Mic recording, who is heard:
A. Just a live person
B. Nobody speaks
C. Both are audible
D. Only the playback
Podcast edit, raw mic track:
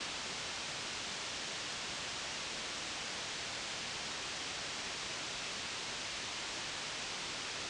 B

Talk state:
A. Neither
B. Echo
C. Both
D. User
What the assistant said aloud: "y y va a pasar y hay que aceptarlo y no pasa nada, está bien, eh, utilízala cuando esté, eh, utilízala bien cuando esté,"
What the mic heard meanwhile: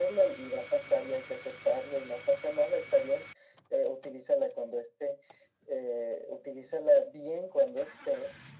B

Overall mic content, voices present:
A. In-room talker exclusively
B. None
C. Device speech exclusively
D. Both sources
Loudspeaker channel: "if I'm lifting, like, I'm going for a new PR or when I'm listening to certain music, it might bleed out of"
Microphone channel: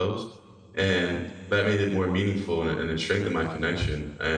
A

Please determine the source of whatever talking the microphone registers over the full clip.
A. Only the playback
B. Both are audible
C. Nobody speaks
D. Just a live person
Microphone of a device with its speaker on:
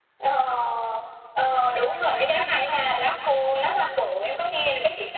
A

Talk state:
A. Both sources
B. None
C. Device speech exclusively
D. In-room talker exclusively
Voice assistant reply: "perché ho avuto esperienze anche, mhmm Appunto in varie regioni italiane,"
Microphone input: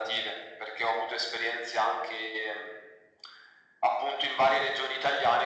C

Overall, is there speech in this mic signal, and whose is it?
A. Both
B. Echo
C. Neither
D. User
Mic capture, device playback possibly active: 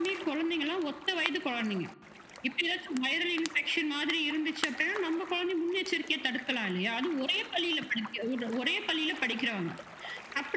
B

